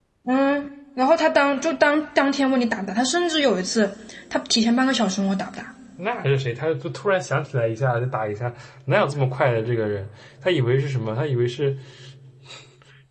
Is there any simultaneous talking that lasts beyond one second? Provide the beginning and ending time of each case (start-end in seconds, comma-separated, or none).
none